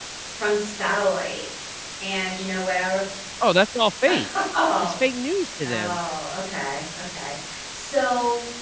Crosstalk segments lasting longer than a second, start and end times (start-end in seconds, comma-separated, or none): none